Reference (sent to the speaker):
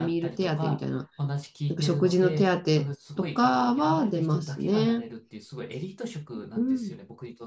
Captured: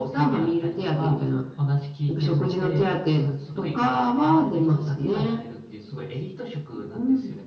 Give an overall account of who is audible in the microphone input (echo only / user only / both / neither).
echo only